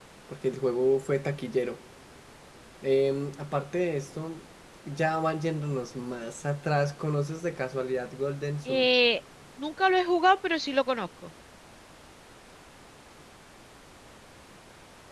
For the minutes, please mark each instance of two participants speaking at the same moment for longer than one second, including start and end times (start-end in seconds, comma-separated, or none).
none